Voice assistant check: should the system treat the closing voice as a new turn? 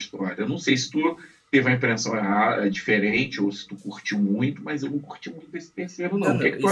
Yes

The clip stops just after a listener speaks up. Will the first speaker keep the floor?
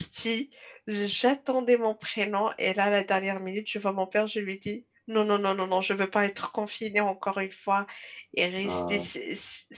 Yes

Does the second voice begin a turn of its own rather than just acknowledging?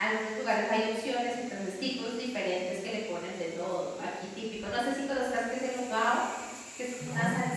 No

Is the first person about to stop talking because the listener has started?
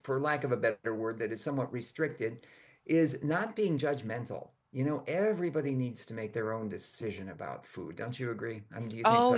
Yes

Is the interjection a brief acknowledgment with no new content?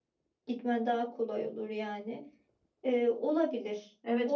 No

